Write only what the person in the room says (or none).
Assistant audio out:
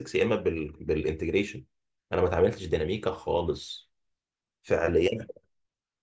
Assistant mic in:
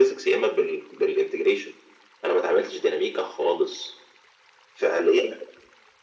none